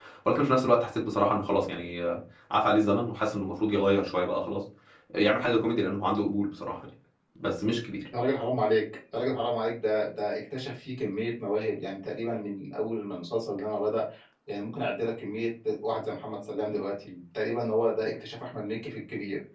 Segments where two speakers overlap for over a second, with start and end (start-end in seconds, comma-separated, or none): none